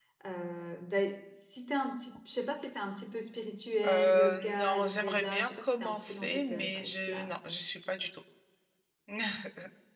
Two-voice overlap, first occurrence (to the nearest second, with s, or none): 4 s